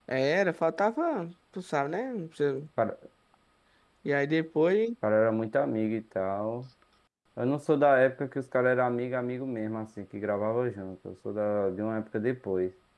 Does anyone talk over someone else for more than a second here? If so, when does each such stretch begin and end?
none

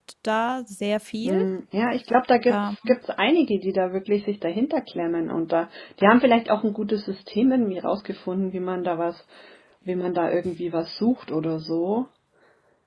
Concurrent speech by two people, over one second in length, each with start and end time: none

